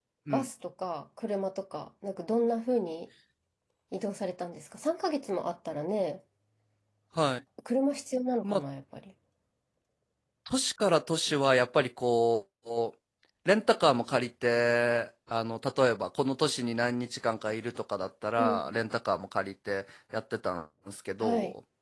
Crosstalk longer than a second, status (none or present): none